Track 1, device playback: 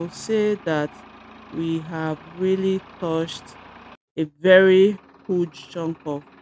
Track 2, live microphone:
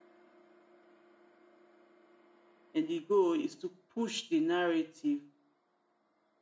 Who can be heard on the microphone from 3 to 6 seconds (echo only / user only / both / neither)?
user only